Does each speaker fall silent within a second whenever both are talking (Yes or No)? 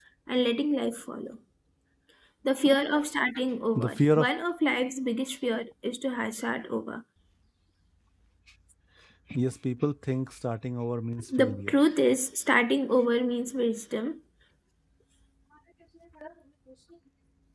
Yes